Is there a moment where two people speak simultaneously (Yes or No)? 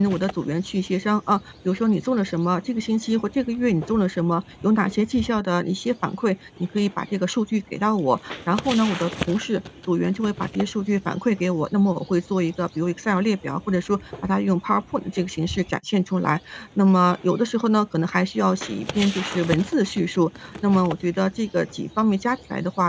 No